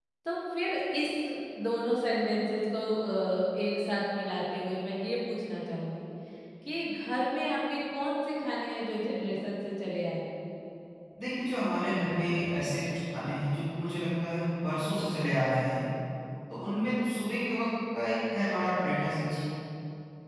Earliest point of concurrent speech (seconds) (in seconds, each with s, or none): none